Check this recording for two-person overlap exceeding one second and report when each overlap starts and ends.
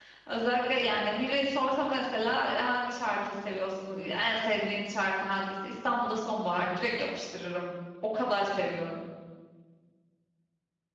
none

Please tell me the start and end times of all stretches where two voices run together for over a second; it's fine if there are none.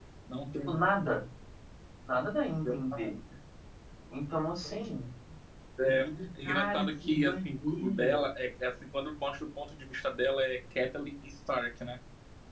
6.4-8.3

